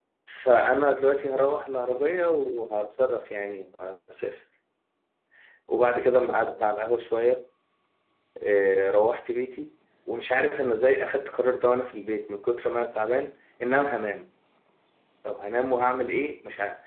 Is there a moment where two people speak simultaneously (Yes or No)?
No